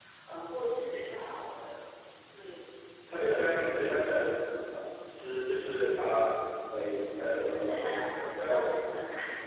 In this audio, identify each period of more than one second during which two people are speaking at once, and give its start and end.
7.3-8.6

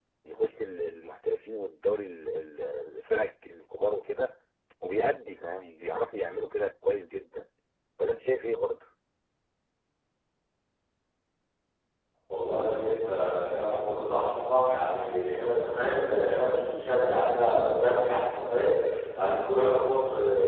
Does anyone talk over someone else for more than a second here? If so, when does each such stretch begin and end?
none

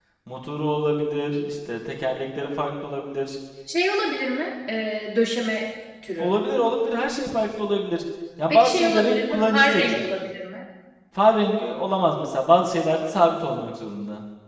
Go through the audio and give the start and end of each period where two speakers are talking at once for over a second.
8.5-10.1

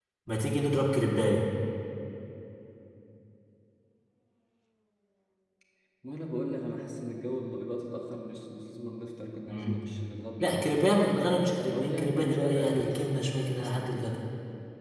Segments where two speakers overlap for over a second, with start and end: 11.7-14.2

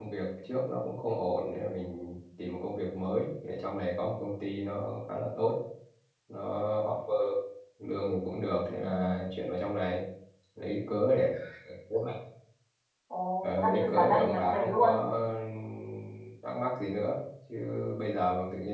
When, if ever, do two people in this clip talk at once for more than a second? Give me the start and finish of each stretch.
13.4-14.9

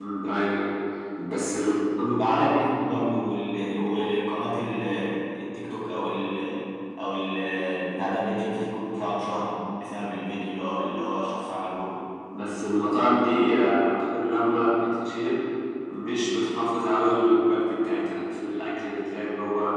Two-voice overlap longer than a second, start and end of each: none

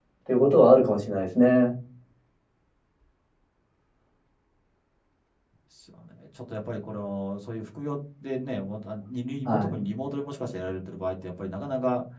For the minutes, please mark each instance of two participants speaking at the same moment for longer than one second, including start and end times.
none

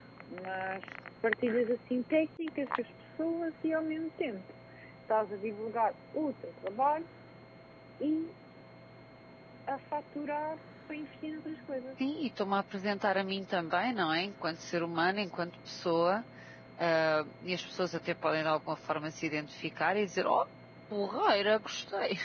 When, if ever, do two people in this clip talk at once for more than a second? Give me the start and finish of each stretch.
none

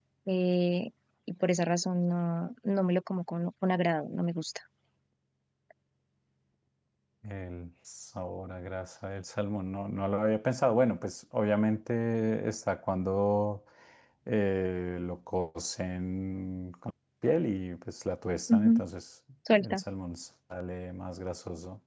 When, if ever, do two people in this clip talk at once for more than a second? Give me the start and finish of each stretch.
none

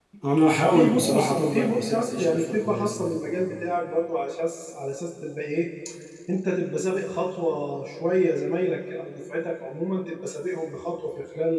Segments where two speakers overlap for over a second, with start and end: 0.6-3.2

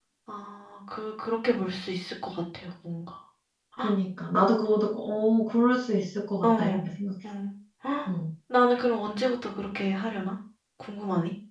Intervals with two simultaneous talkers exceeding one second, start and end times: none

